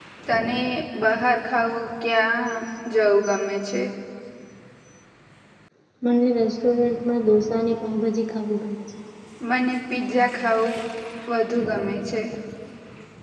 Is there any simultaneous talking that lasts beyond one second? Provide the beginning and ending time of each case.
none

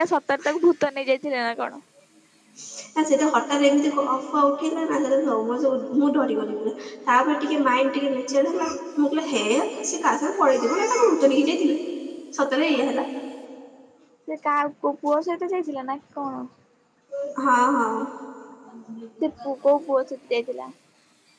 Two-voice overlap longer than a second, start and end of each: none

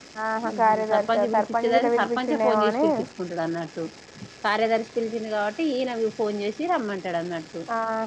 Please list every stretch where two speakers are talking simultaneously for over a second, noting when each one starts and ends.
0.5-2.8

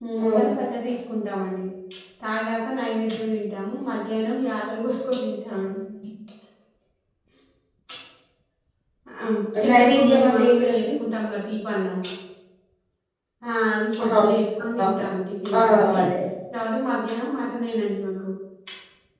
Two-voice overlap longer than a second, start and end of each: 9.7-10.9

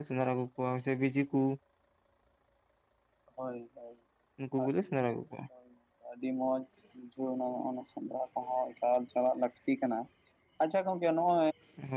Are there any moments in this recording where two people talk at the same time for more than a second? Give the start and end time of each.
none

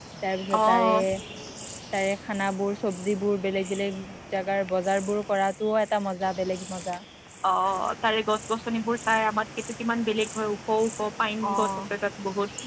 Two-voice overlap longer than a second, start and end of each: none

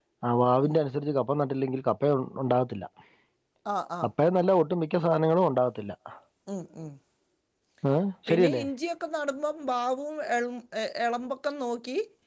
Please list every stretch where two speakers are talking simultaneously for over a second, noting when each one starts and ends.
none

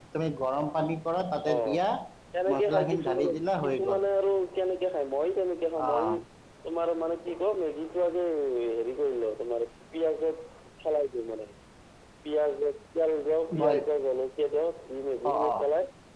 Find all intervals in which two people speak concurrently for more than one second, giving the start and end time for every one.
2.5-4.0

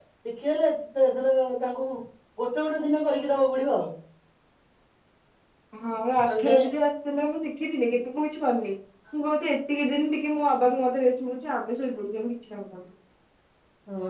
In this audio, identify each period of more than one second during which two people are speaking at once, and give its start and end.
none

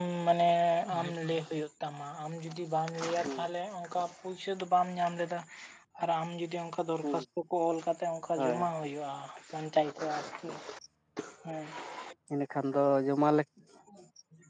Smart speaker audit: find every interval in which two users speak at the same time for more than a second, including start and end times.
none

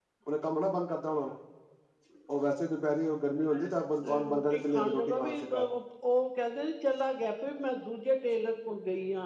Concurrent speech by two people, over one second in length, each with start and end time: 4.0-5.7

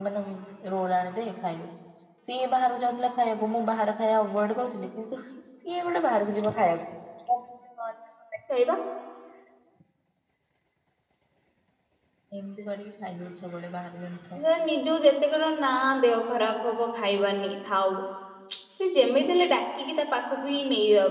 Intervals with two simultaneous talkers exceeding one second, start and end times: none

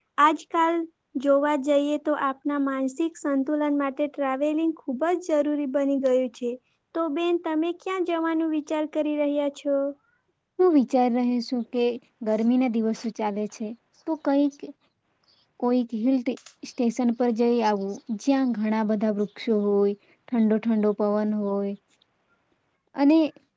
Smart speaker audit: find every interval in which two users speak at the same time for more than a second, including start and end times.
none

